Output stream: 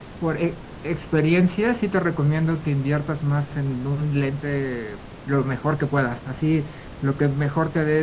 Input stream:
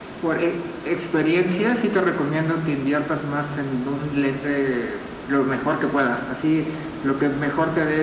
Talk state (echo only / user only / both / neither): echo only